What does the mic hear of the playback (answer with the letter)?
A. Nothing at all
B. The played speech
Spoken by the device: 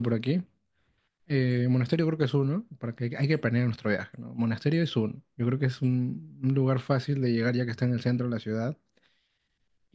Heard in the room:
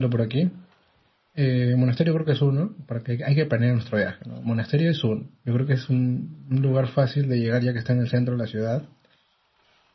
B